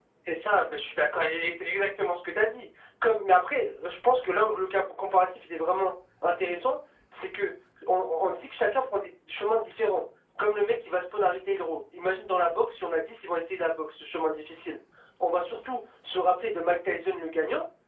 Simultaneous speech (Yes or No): No